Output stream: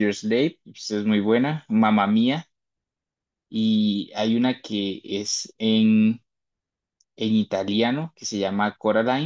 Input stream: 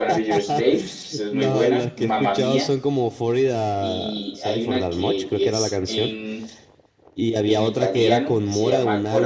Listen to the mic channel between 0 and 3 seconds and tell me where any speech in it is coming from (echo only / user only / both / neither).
both